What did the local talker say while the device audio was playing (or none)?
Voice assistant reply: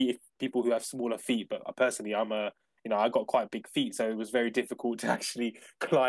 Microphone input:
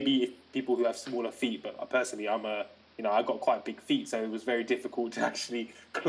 none